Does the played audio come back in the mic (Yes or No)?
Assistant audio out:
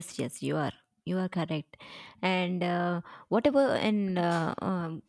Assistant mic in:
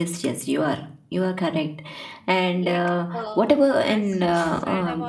Yes